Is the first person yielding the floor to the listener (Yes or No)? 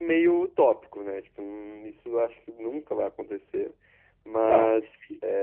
No